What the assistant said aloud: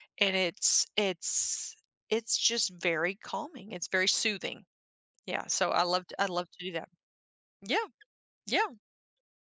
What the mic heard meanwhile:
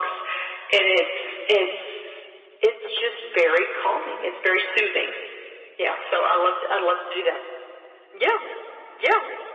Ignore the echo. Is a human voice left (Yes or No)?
No